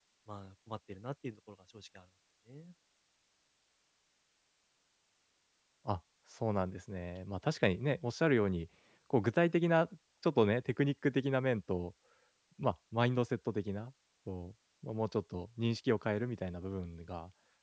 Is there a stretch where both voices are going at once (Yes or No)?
No